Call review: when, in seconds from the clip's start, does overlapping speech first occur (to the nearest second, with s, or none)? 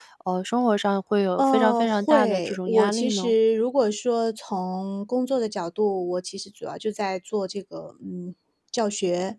1 s